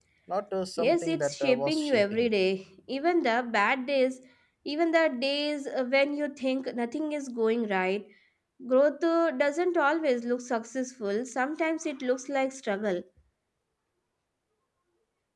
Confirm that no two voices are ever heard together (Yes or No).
No